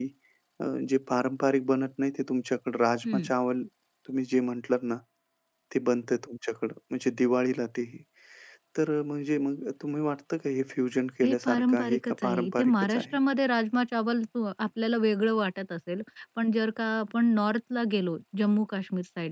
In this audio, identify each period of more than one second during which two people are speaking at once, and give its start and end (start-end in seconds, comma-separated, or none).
11.2-13.1